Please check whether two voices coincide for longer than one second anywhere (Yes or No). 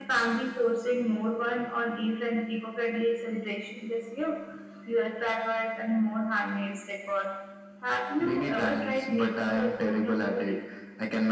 Yes